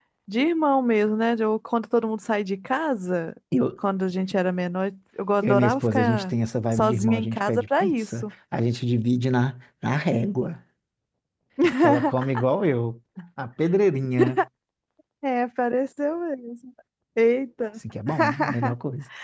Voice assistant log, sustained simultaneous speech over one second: present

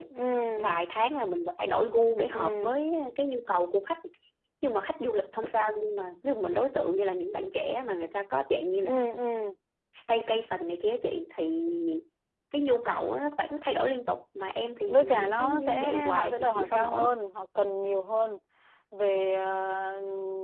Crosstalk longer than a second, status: present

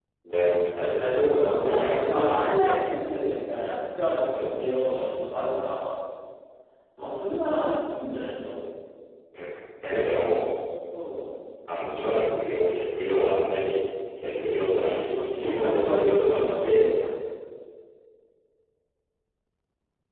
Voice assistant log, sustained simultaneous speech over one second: present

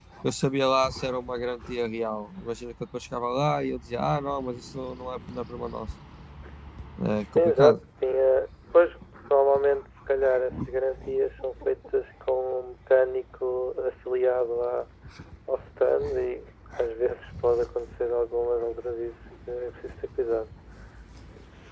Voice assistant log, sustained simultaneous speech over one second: none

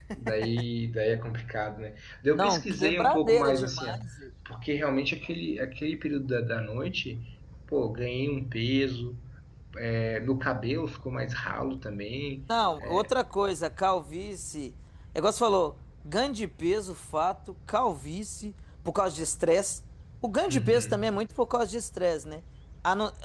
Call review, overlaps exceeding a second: present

